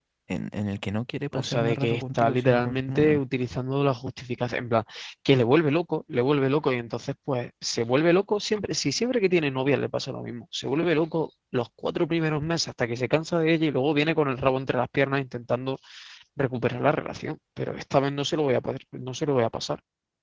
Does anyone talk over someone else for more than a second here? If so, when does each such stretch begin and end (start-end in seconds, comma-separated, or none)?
1.4-3.2